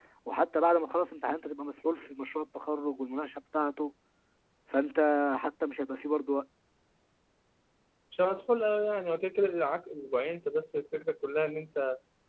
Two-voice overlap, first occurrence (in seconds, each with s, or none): none